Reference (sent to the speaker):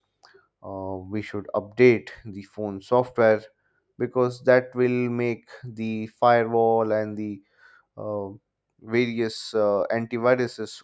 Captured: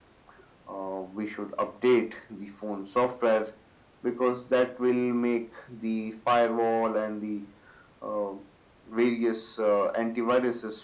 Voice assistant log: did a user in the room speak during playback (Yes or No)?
No